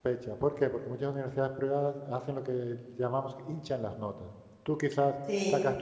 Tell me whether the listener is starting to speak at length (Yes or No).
No